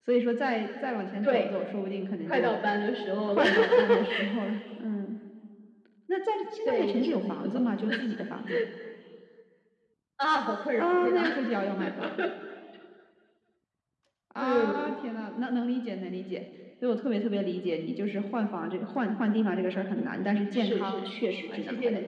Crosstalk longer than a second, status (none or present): present